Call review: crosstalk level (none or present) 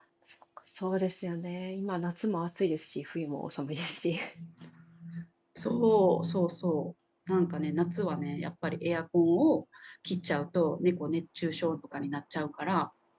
none